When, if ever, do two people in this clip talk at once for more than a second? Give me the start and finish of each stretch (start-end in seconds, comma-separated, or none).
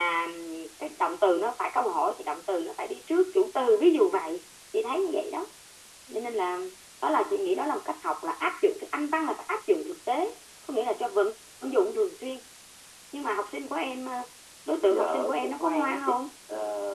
14.9-16.1